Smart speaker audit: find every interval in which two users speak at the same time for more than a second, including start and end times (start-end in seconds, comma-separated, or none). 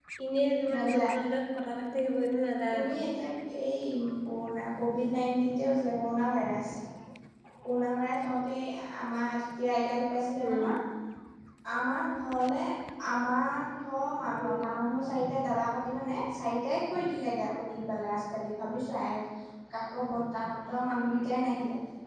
none